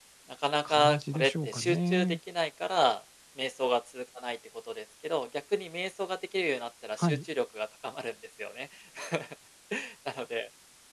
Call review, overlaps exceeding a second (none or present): present